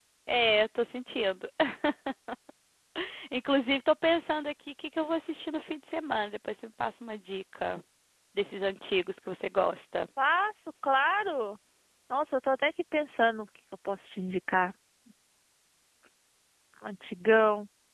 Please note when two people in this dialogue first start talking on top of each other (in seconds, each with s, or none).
none